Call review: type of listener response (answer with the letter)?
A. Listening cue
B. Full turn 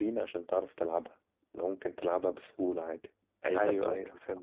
B